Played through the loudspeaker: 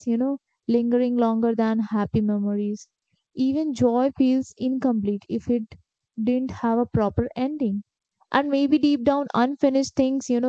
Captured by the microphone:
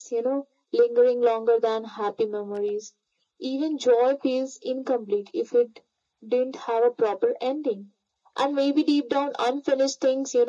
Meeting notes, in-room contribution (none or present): none